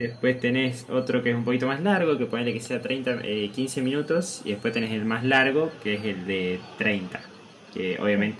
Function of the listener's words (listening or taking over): listening